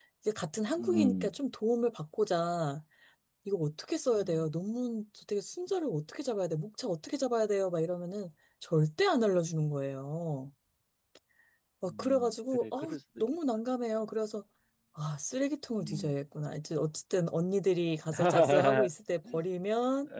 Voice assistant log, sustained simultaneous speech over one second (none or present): present